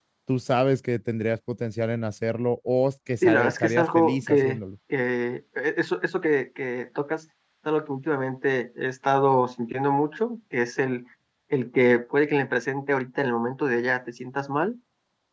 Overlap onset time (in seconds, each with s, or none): 3.2 s